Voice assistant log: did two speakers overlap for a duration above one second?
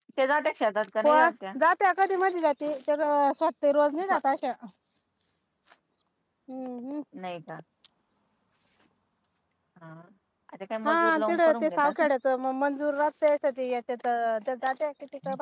Yes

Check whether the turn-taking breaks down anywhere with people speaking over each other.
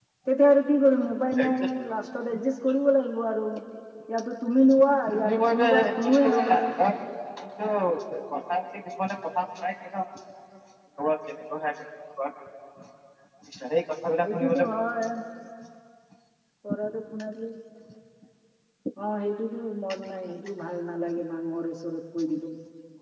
Yes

